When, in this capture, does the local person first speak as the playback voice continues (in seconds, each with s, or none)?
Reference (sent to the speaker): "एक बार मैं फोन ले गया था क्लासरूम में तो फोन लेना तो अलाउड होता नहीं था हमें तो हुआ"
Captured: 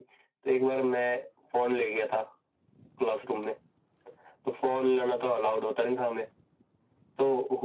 none